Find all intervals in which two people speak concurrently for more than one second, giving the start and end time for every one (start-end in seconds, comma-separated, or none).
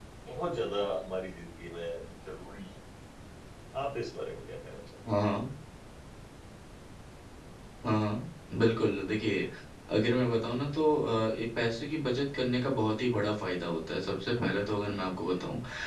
none